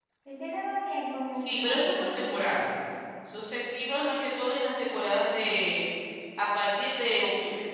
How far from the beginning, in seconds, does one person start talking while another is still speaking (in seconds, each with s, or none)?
1.3 s